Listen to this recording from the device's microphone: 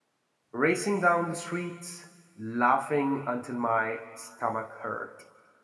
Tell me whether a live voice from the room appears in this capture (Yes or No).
Yes